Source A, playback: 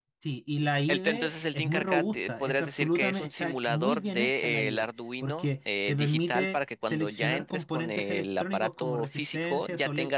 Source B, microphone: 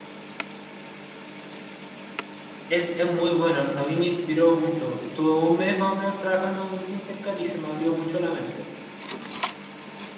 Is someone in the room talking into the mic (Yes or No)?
Yes